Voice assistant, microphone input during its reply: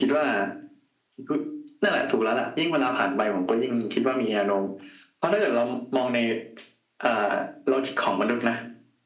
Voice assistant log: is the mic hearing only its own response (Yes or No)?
Yes